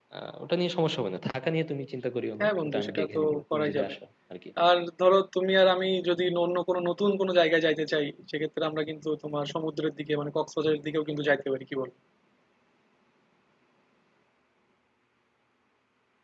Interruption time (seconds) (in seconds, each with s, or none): 2.4 s